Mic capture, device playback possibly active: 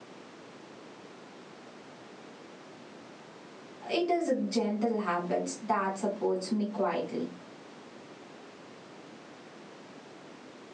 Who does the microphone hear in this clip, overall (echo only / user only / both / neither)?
user only